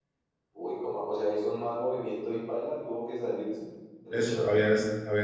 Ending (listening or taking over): taking over